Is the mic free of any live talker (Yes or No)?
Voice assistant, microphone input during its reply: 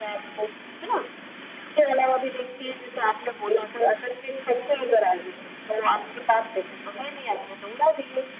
Yes